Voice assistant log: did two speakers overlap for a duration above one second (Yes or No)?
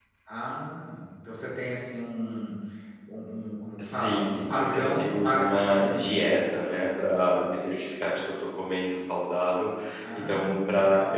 Yes